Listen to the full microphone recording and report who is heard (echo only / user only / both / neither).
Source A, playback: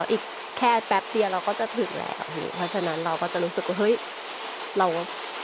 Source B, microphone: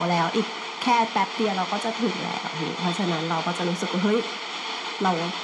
echo only